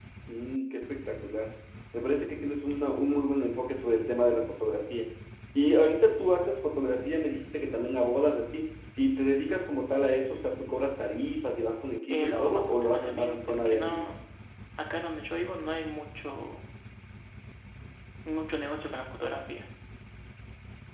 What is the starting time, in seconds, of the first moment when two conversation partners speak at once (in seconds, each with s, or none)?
12.1 s